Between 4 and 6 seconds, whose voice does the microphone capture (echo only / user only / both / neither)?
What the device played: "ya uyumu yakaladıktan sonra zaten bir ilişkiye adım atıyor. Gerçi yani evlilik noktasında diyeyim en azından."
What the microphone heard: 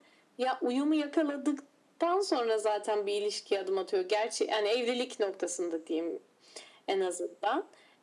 echo only